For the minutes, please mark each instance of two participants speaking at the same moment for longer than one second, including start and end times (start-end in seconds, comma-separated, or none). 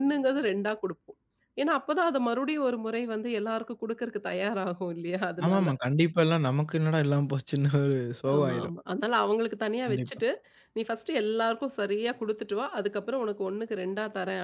none